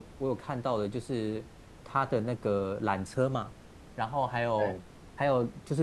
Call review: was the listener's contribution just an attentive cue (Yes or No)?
Yes